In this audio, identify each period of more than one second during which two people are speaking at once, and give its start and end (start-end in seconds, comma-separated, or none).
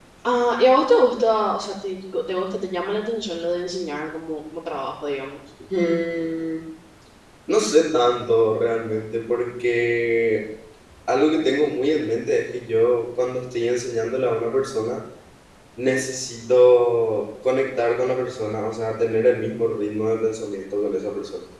none